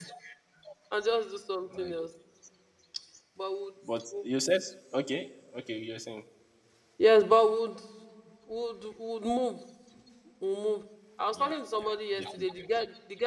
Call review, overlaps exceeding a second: none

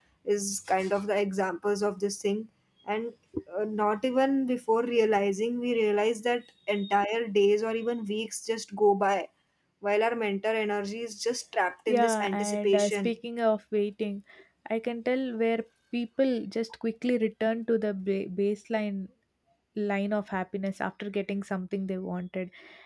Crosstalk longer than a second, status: present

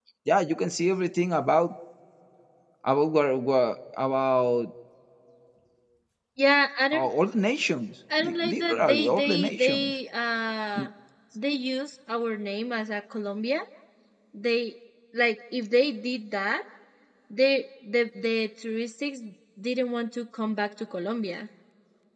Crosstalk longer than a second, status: present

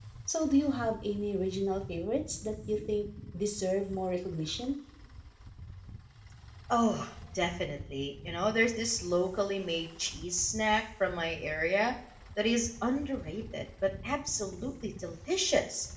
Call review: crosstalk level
none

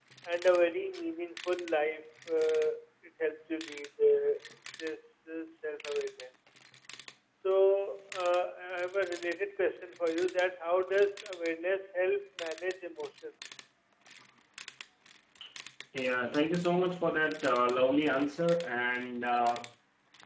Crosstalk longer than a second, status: none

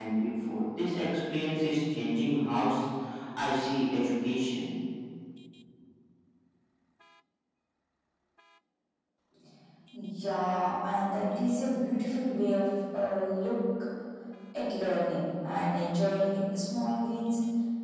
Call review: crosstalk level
none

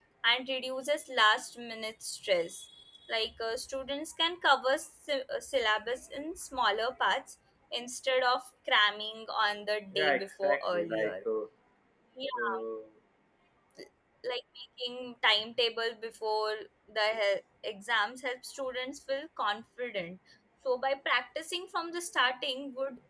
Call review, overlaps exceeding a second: present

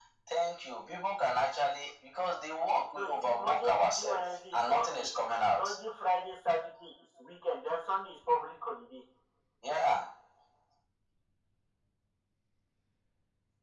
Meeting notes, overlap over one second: present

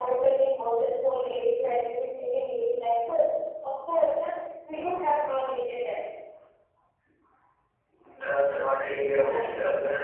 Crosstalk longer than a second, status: none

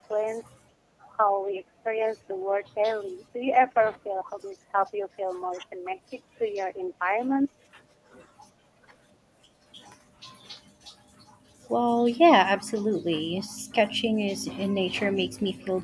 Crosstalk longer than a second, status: none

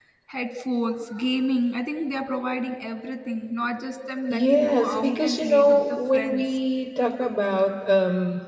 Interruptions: present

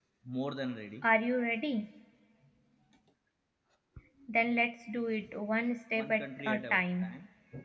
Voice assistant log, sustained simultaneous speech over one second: present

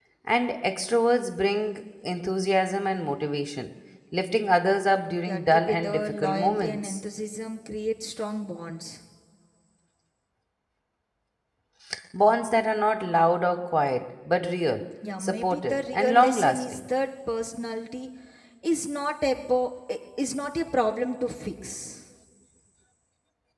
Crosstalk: present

